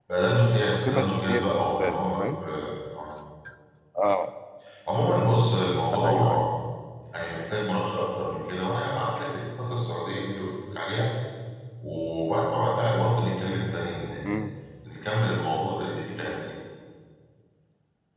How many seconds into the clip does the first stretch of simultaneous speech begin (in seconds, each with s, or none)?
0.7 s